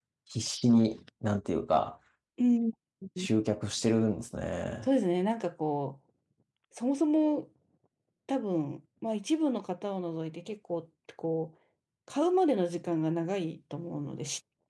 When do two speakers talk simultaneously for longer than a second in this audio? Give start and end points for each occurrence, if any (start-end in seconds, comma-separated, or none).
none